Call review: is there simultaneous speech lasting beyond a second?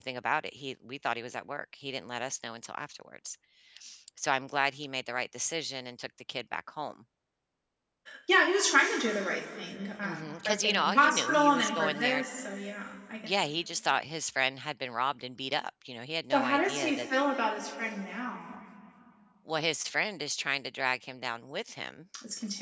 Yes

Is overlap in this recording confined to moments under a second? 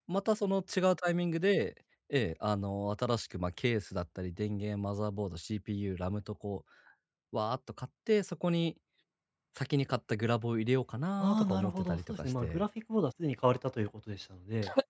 No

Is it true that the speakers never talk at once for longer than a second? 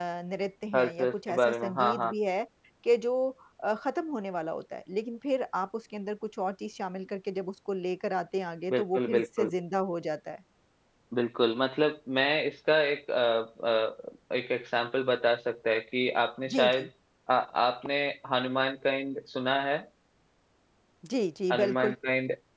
No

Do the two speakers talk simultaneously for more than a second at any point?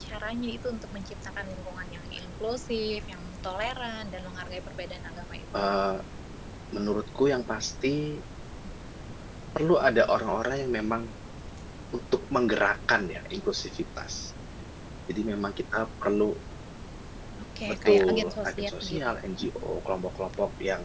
Yes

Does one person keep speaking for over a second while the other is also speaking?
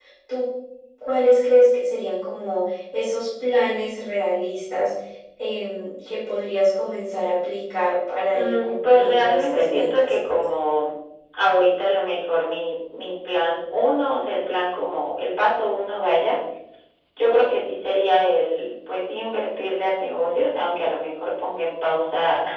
Yes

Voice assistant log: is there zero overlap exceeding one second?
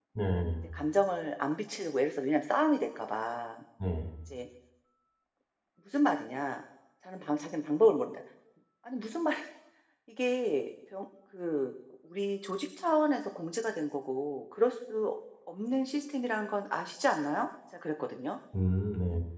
Yes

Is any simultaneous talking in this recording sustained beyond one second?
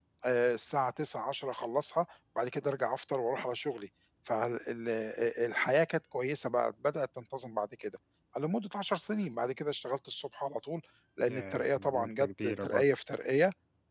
Yes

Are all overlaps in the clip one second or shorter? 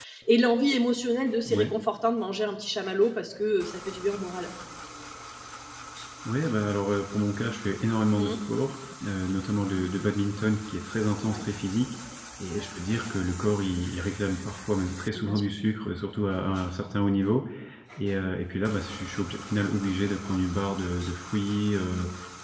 Yes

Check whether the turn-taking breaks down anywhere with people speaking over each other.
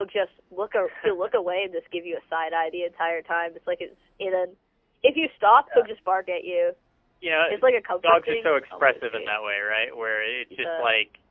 Yes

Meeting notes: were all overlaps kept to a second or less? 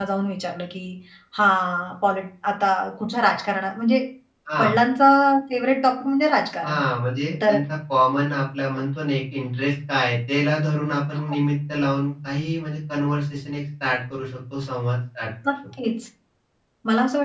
Yes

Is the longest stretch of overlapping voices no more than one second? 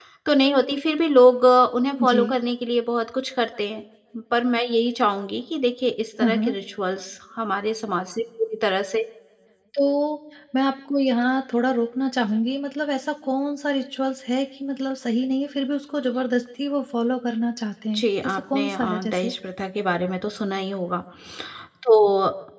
No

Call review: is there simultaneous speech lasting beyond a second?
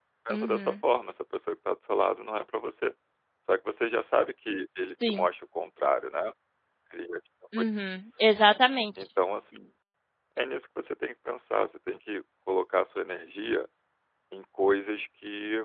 No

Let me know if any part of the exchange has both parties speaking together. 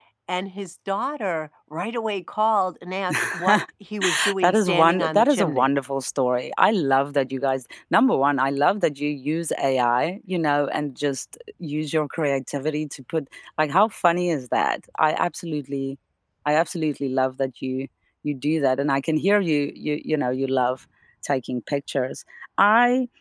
Yes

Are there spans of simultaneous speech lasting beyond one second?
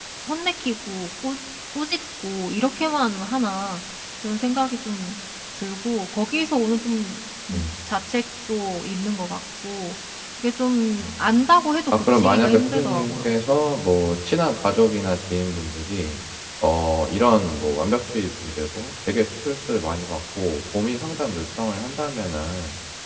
Yes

